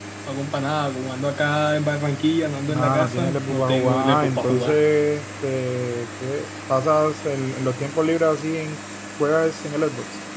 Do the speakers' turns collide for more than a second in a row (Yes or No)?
Yes